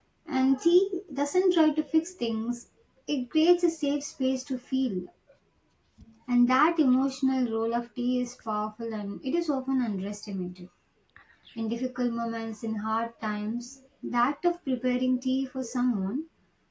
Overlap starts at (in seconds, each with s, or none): none